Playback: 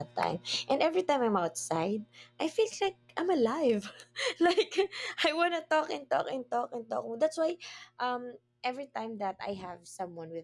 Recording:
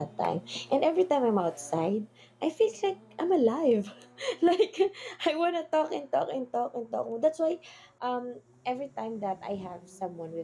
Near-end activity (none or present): none